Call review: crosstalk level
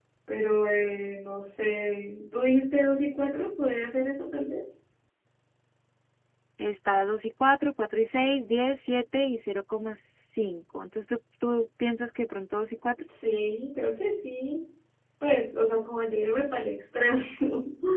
none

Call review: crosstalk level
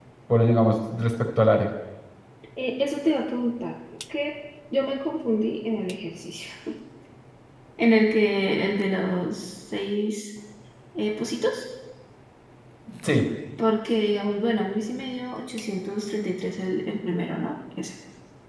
none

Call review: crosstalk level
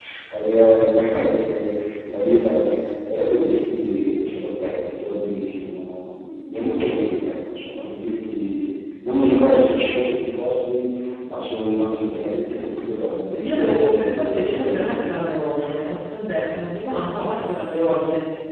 present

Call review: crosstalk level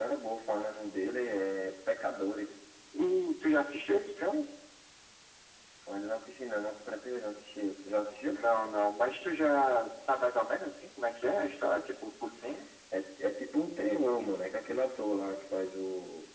none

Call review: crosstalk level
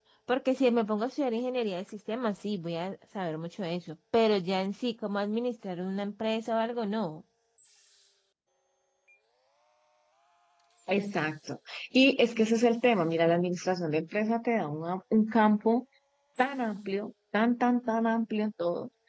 none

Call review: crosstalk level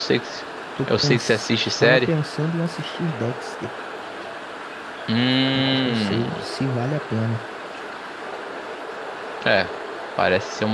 present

